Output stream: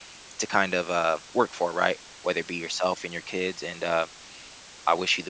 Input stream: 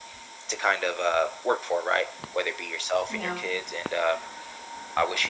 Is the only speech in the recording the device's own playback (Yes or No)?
No